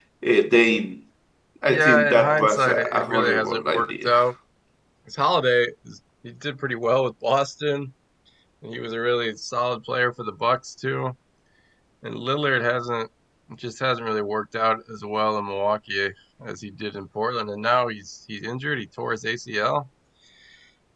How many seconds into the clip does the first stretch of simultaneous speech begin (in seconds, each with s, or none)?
1.7 s